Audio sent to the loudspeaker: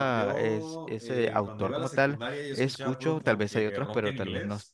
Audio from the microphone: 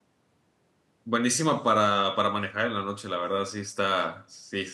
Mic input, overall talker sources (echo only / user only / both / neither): user only